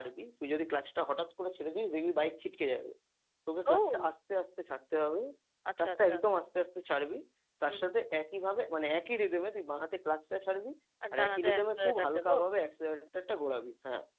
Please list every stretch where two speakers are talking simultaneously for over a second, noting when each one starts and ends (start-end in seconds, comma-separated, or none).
11.1-12.3